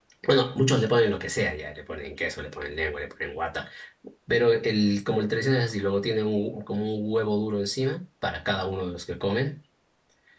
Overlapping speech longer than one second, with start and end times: none

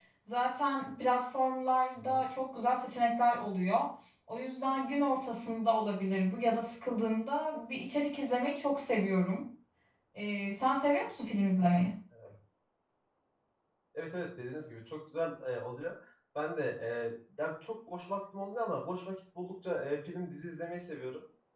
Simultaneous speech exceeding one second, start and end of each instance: none

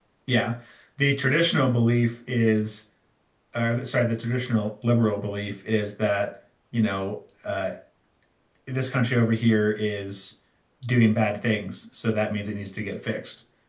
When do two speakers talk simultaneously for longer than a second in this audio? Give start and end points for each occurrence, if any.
none

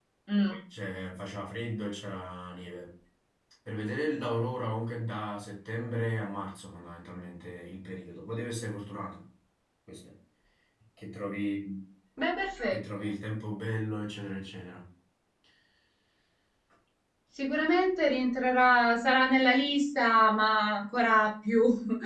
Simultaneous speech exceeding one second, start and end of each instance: none

